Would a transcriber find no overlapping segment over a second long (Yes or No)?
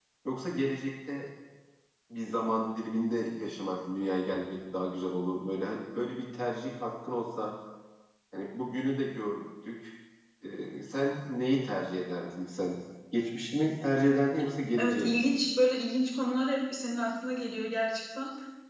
Yes